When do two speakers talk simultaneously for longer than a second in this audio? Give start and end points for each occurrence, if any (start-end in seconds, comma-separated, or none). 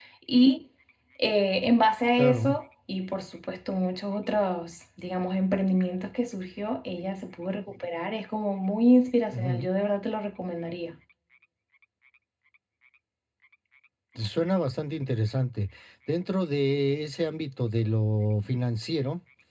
none